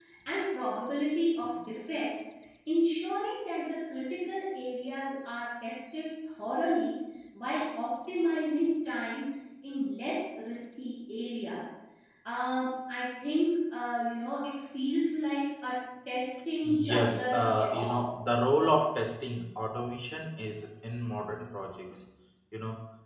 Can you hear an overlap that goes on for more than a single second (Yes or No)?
Yes